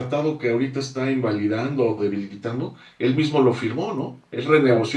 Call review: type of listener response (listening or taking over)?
listening